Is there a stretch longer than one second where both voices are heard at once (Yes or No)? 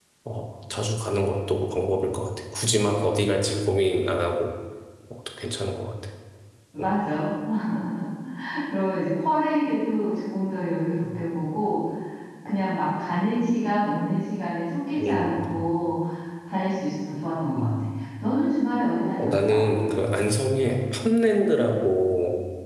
No